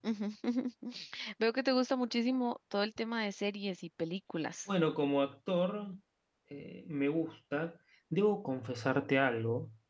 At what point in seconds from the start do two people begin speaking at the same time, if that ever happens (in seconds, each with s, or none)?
none